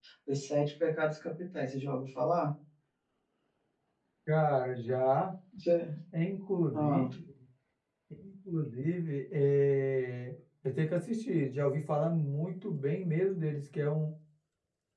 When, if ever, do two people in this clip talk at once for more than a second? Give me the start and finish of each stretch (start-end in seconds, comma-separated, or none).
none